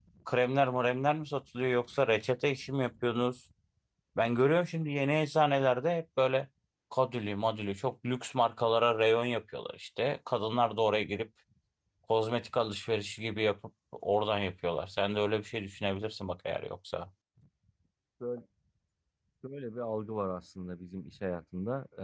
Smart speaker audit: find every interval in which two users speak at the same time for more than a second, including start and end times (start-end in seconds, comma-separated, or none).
none